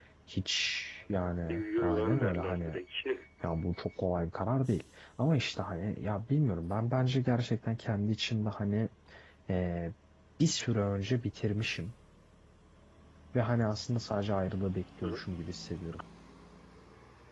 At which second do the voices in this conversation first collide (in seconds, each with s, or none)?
1.5 s